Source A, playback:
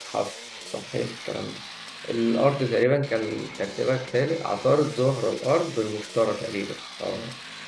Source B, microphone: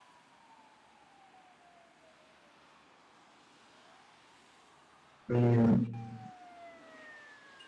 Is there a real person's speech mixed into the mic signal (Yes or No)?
Yes